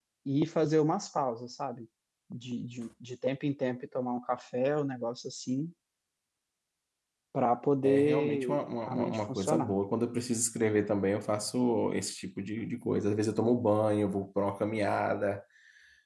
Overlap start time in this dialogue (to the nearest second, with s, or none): 8 s